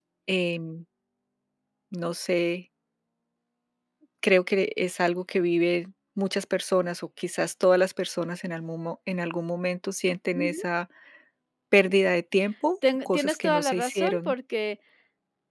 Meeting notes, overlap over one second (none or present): present